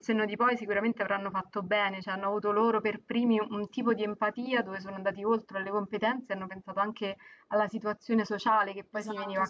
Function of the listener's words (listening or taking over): taking over